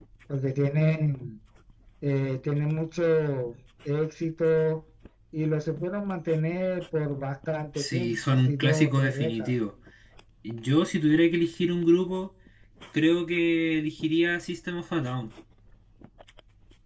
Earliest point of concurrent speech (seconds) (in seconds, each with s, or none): 7.8 s